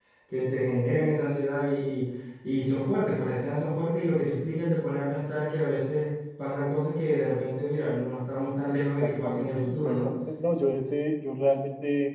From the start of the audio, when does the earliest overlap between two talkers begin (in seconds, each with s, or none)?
8.7 s